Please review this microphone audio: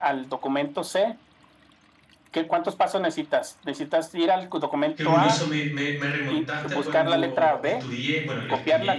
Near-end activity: present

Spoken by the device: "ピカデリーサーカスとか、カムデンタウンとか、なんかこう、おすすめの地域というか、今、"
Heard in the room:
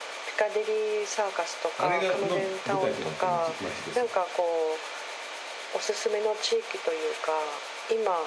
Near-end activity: present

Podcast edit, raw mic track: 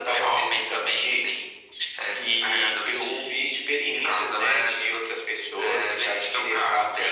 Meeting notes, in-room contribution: none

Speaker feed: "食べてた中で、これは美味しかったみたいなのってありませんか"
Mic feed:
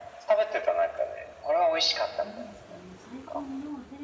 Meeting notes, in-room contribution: present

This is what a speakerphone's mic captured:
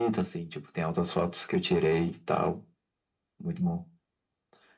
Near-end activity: none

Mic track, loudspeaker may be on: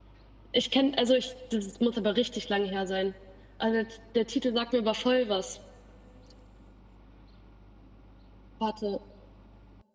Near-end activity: present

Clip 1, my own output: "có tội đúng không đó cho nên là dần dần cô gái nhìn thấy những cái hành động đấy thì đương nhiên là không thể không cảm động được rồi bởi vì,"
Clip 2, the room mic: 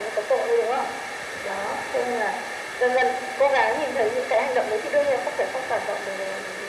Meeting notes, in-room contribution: none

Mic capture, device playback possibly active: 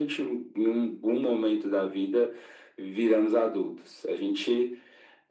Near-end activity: none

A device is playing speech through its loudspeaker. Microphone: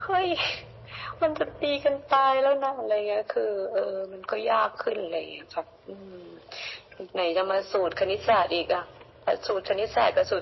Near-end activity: none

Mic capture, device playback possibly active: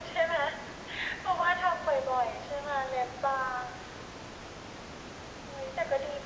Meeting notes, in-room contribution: none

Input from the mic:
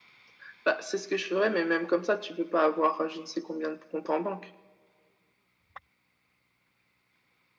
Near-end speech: none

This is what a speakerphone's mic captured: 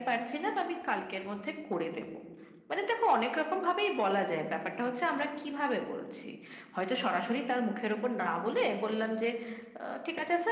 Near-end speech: none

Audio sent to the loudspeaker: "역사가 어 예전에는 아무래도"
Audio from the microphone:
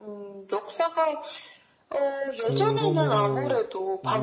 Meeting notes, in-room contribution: present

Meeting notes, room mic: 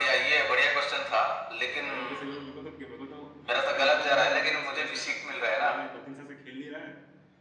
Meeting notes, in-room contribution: present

